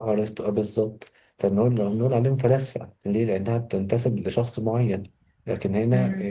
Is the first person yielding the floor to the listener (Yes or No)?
No